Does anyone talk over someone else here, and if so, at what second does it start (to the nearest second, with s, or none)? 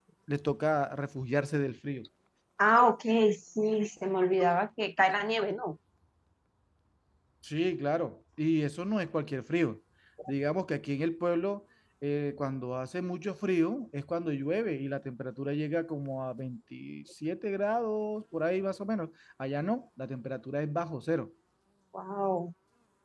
none